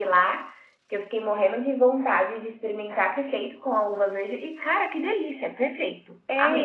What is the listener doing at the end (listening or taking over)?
taking over